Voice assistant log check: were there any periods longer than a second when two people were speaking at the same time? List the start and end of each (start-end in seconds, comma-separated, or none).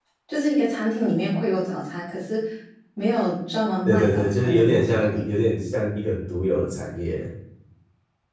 3.9-5.3